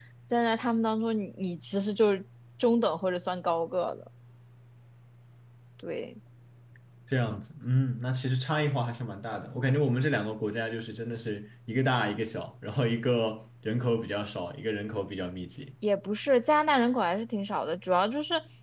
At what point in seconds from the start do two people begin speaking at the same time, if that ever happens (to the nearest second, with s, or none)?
none